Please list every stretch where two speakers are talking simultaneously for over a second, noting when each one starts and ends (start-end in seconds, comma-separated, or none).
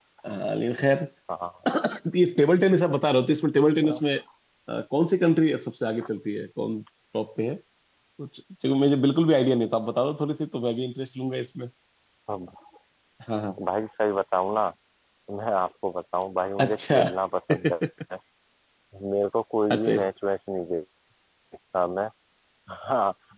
none